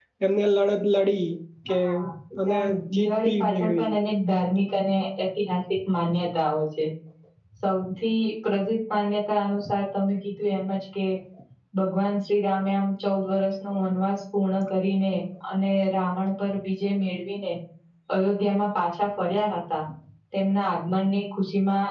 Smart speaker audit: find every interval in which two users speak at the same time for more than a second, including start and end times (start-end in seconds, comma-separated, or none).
2.5-3.9